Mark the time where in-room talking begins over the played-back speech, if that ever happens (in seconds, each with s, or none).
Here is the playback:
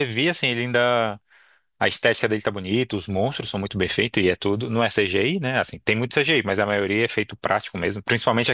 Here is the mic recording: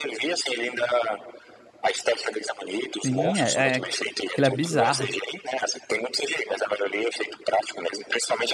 3.0 s